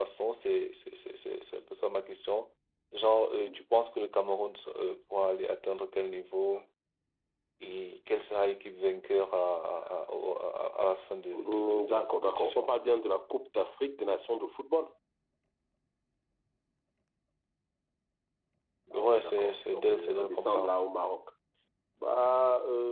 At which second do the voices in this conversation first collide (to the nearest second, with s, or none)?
11 s